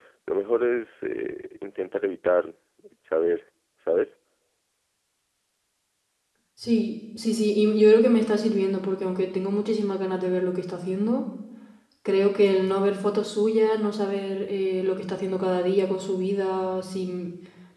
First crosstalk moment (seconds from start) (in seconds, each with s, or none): none